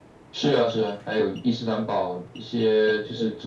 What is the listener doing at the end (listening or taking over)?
listening